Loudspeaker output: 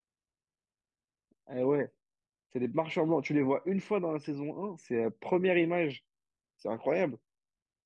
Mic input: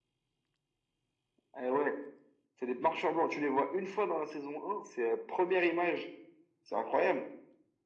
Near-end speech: none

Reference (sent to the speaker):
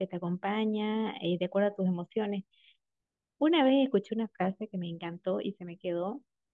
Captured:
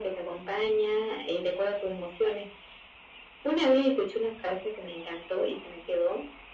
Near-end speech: none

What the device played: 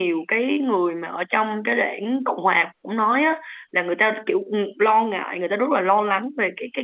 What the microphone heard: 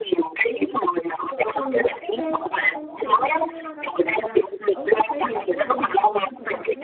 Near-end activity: present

